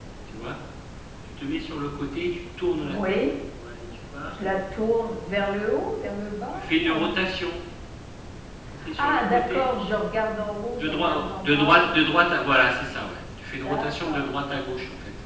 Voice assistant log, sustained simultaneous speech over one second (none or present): present